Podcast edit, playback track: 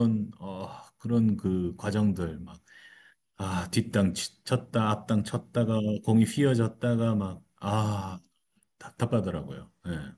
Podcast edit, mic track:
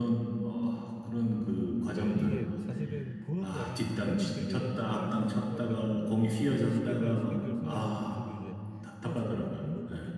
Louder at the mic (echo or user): echo